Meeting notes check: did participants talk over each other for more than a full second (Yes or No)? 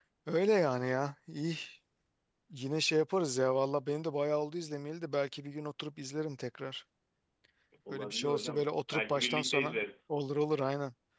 Yes